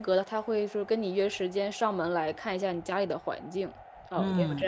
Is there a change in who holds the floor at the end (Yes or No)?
Yes